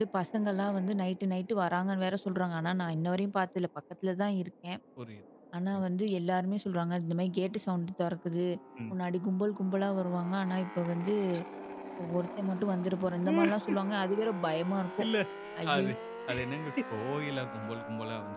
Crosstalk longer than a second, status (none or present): none